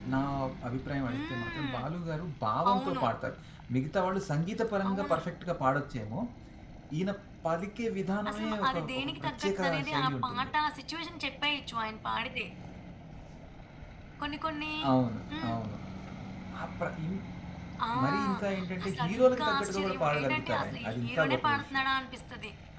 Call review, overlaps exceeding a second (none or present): present